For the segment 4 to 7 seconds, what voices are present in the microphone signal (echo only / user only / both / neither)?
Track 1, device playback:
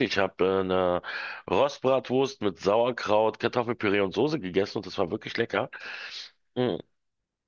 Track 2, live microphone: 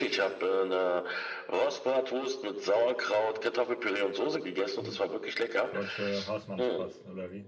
both